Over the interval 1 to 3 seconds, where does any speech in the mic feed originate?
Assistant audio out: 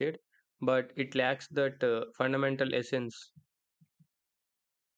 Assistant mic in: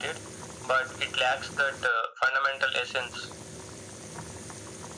echo only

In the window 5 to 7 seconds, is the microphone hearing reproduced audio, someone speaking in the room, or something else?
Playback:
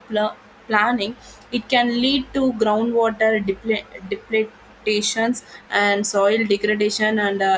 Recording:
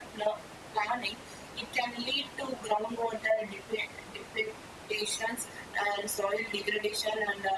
echo only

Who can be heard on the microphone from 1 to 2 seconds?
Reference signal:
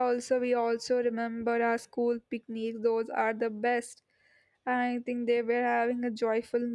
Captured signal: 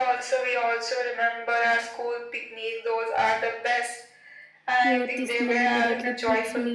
echo only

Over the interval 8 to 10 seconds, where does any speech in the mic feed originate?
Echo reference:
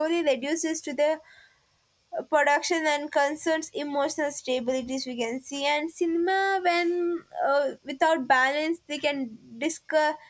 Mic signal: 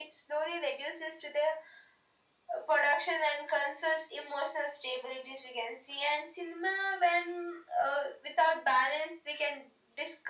echo only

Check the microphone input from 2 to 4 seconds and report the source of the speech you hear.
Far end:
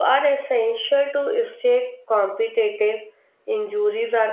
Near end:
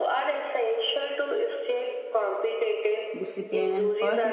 both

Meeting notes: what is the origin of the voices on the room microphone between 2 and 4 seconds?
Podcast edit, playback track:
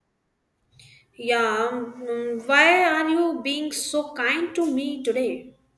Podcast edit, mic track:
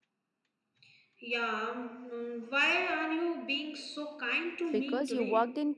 echo only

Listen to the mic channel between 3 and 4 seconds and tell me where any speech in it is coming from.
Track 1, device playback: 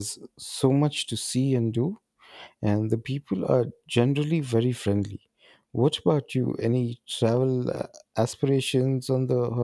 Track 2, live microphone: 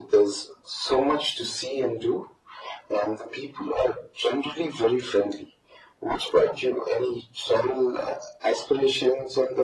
echo only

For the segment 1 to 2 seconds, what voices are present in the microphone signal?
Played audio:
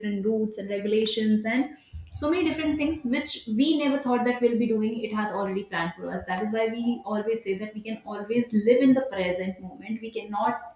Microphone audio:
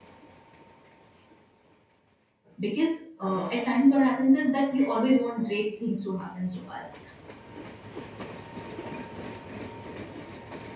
neither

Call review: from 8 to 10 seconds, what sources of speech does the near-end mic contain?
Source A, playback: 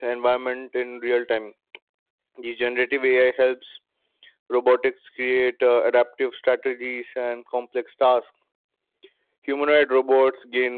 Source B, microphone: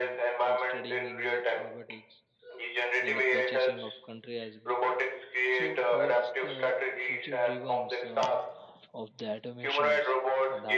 both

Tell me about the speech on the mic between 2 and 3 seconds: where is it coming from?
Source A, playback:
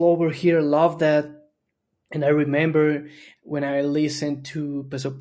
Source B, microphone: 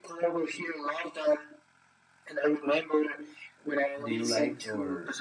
echo only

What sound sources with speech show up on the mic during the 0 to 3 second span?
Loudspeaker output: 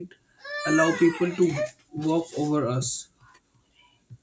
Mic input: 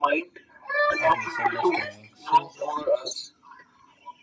both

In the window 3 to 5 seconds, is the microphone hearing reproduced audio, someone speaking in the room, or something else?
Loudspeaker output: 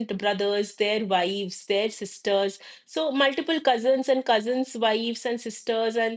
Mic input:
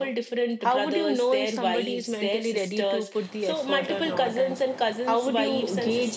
both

